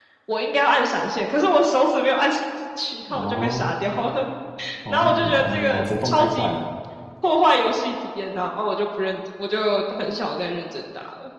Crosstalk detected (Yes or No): Yes